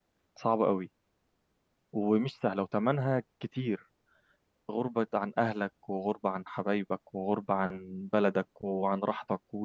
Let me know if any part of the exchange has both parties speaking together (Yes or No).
No